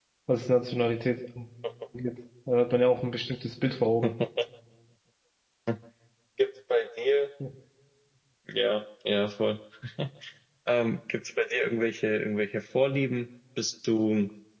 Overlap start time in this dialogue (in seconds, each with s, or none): none